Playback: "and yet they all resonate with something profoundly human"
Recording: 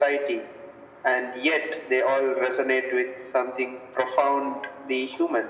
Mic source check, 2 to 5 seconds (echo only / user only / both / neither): echo only